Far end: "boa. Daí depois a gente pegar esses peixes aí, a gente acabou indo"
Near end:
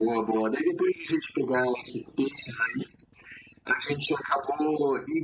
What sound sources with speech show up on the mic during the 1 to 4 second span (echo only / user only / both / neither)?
echo only